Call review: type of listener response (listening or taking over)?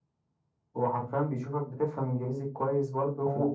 taking over